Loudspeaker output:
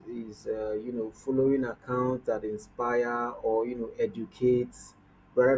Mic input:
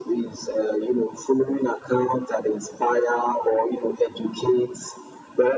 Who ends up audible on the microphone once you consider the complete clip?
echo only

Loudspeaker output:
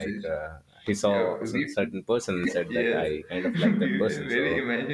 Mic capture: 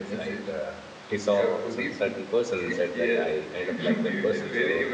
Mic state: echo only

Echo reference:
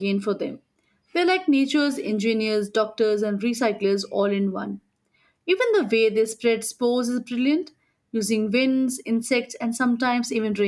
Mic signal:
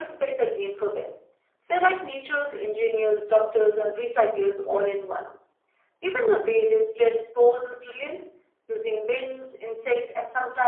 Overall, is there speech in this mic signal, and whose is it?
echo only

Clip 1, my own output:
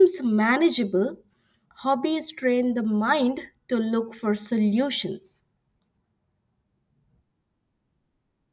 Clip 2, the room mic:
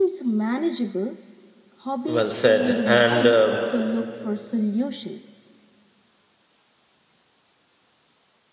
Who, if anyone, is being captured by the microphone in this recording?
both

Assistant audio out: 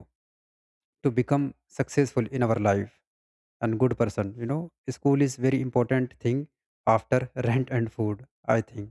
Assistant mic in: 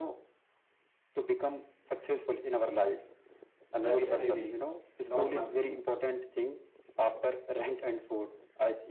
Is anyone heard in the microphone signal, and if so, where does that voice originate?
both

